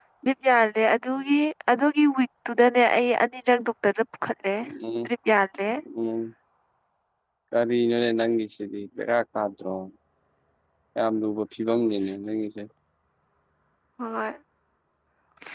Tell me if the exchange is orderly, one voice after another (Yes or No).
Yes